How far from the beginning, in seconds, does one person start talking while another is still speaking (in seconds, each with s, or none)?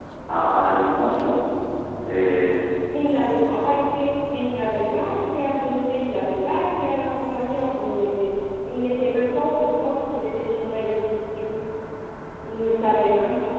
none